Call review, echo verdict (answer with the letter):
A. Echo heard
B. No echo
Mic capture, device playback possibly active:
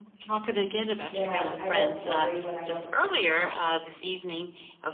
A